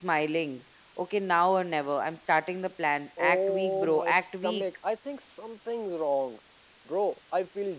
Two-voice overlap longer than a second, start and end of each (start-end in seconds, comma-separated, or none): 3.2-4.6